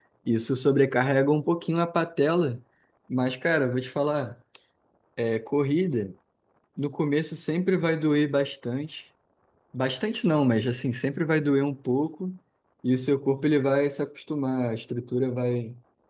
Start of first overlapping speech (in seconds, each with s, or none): none